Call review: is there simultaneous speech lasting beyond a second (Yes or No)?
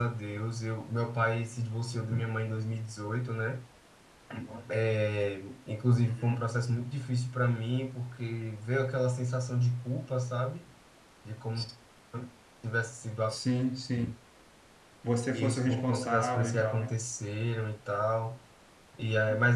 Yes